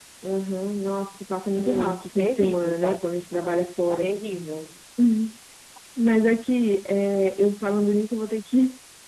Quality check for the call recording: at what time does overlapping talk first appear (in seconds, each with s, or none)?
1.6 s